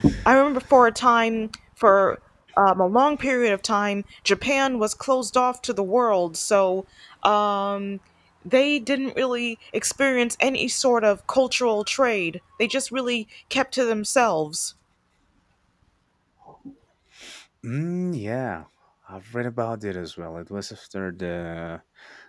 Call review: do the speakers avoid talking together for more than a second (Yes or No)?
Yes